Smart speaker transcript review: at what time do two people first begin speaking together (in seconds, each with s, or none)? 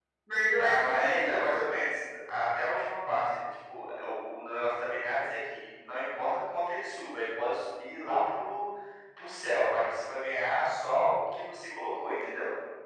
0.6 s